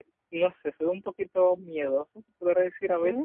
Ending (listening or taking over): listening